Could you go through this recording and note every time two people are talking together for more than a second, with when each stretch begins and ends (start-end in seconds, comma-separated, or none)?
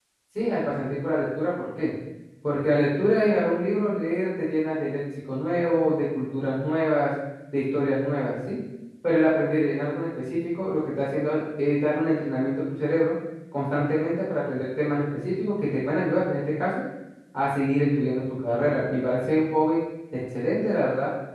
none